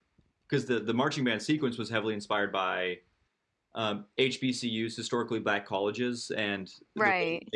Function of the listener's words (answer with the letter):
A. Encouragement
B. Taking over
A